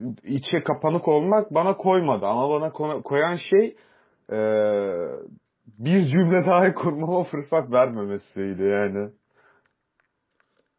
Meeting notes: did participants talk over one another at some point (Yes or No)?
No